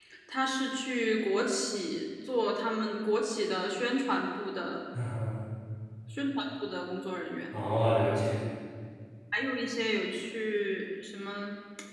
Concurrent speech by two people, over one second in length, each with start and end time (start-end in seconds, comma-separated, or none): none